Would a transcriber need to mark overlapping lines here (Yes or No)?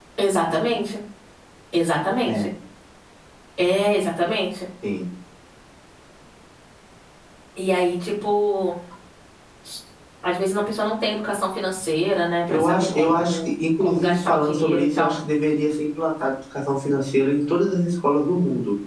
Yes